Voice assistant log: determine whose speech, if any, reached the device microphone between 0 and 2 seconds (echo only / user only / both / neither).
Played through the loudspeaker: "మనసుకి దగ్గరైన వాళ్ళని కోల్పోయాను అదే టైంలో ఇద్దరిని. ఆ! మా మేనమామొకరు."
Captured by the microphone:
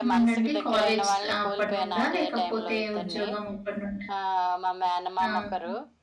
both